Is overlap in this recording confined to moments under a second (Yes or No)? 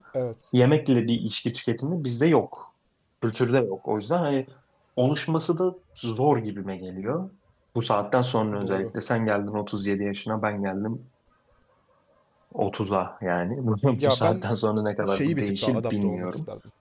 No